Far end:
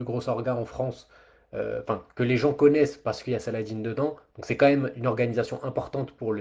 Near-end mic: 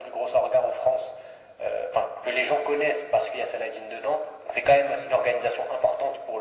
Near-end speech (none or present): none